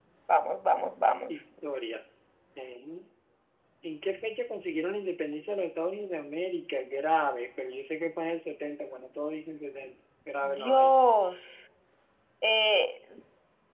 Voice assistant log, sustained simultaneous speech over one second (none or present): none